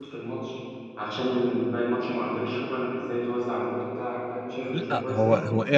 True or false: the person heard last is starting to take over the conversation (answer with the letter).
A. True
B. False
A